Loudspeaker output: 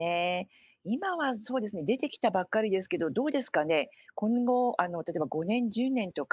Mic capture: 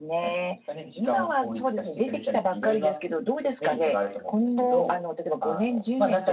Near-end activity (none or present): present